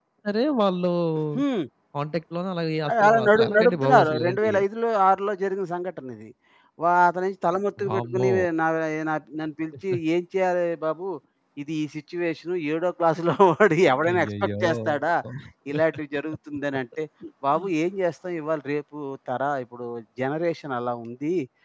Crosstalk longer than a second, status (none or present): present